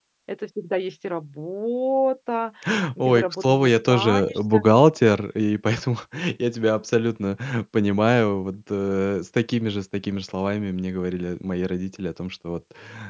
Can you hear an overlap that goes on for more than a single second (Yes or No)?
Yes